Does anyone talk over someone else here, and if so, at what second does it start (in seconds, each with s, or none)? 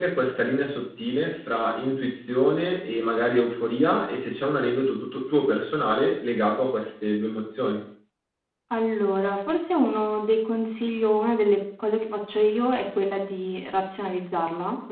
none